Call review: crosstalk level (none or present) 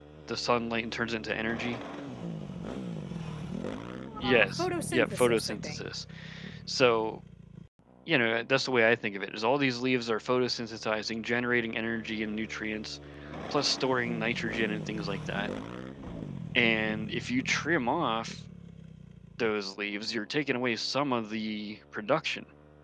present